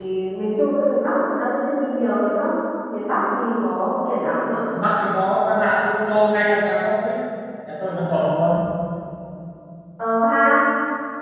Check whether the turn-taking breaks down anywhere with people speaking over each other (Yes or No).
No